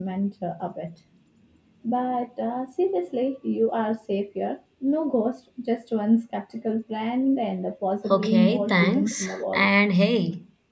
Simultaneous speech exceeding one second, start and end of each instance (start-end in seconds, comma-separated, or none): 8.1-9.7